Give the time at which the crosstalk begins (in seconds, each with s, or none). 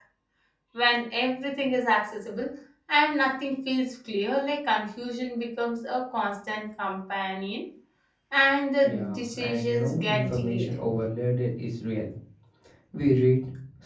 8.8 s